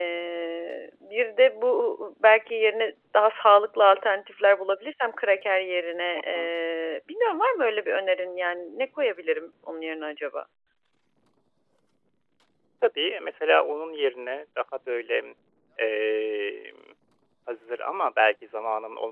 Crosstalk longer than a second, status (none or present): none